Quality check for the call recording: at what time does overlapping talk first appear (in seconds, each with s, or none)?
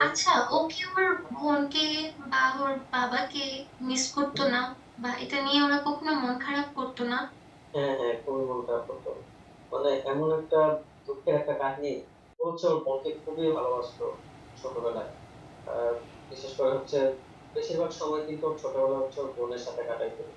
none